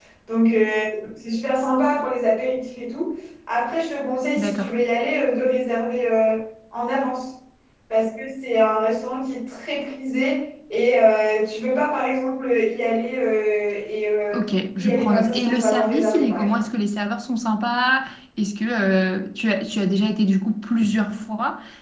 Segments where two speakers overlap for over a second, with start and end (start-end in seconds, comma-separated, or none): 14.3-16.6